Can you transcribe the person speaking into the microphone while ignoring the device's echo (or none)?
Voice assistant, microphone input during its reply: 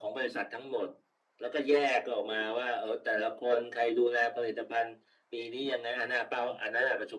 none